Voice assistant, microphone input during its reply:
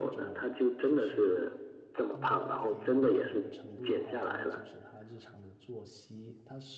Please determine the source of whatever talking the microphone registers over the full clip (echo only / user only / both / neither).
both